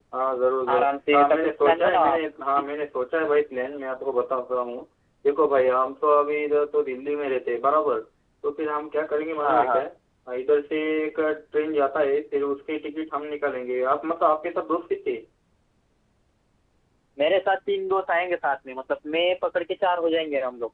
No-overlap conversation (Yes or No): No